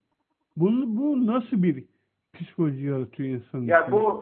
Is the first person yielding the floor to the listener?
Yes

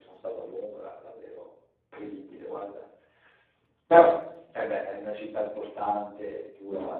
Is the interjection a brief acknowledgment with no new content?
No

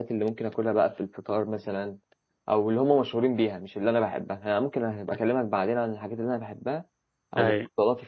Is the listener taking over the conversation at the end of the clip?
No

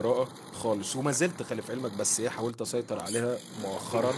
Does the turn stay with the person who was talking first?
Yes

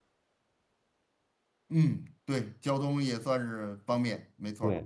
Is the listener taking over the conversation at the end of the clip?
Yes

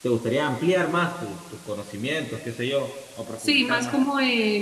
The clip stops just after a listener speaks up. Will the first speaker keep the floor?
No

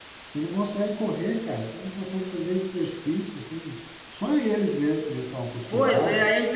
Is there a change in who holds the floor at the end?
Yes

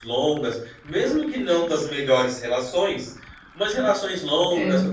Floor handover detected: No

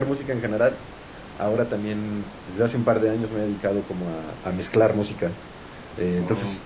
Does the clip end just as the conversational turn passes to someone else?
No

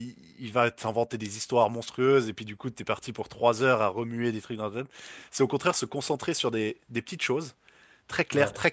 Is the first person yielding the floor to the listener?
No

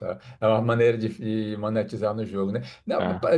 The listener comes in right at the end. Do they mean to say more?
No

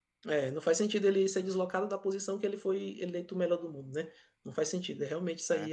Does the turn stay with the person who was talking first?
Yes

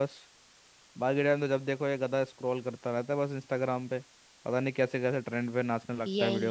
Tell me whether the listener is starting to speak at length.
Yes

